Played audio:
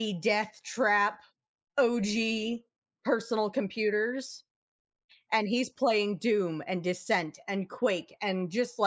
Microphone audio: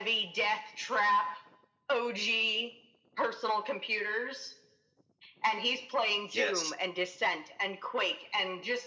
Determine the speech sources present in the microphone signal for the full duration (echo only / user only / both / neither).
both